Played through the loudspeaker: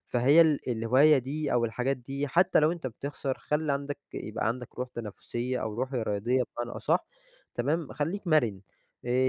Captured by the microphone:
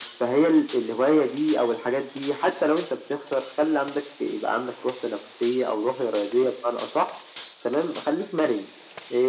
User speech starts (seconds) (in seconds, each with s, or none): none